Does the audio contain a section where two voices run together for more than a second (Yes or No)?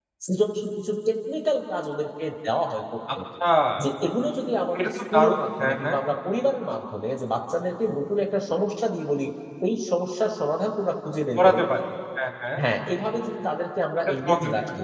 Yes